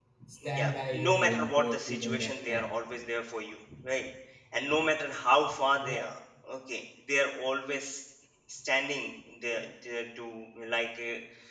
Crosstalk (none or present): present